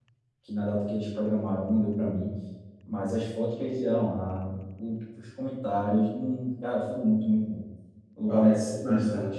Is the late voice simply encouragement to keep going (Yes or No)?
No